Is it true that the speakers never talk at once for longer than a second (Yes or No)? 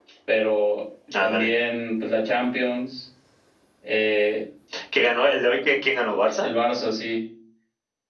Yes